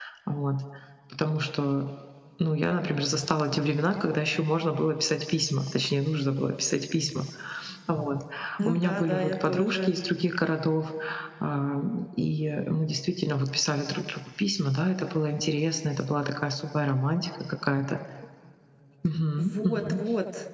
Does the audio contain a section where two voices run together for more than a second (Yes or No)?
Yes